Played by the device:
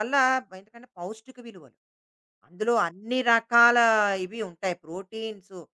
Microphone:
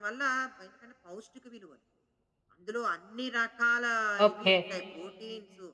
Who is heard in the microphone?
both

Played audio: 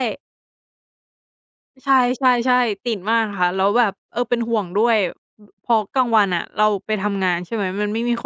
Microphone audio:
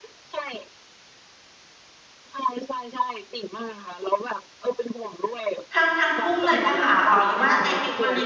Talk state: both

